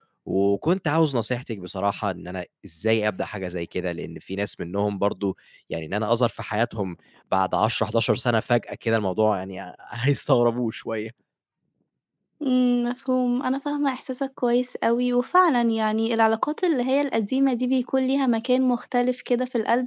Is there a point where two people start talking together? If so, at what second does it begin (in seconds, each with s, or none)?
none